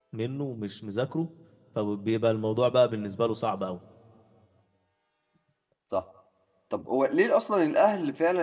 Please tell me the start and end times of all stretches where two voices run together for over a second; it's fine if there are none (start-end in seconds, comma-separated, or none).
none